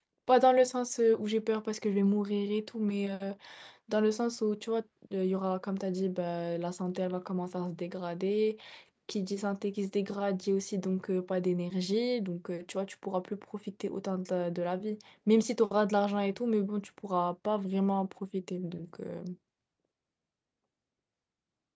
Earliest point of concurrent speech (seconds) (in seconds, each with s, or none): none